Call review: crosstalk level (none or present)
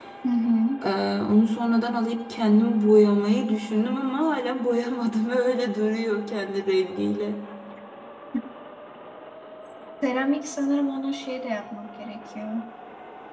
none